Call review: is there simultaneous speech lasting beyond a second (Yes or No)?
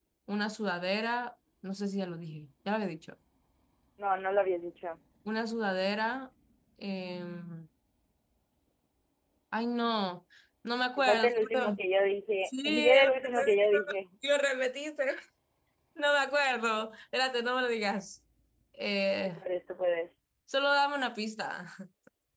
Yes